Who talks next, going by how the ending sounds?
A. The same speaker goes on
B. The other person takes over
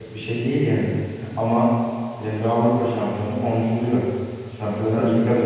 A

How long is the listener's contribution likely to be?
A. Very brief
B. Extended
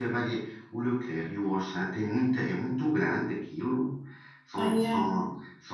A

